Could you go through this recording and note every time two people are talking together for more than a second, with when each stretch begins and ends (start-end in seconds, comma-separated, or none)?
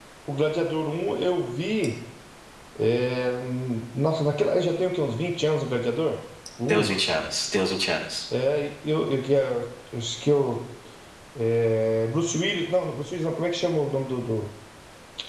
none